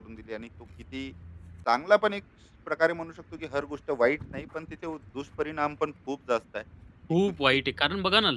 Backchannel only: No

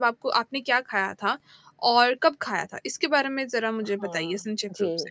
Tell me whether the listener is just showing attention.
No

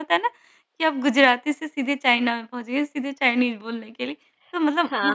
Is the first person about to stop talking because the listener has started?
No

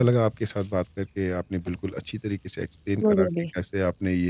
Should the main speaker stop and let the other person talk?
No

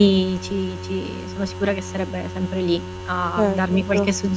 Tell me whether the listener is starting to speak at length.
No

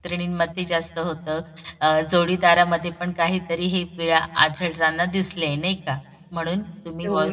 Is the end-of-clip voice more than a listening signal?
No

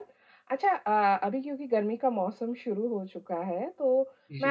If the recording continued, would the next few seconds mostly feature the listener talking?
No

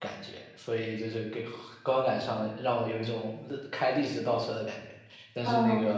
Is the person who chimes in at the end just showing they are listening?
Yes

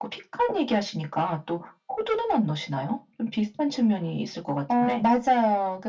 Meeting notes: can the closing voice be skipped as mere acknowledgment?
No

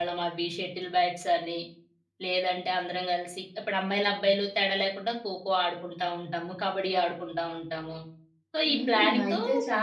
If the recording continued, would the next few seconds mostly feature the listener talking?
Yes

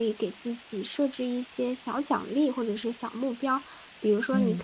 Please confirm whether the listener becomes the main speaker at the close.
No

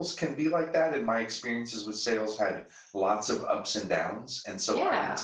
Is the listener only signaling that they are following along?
Yes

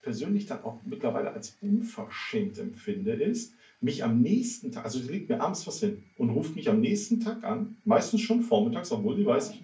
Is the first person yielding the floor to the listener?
No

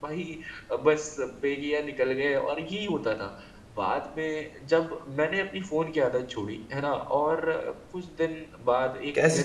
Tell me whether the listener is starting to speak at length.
Yes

